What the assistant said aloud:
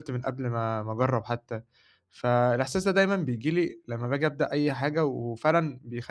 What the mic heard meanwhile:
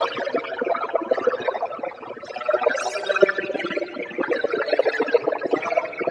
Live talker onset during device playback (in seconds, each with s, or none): none